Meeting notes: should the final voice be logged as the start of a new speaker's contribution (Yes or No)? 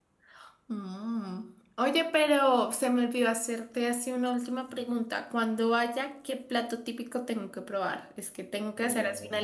No